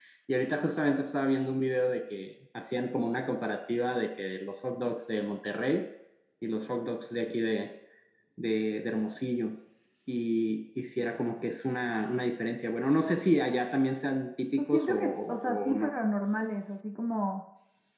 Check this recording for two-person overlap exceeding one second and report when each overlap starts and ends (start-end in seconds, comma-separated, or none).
14.6-15.9